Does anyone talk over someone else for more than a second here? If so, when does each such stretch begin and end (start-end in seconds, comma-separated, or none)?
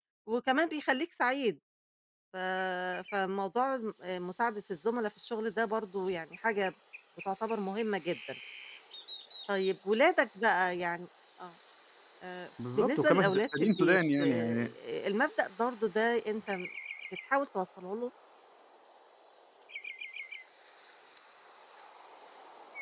12.8-14.7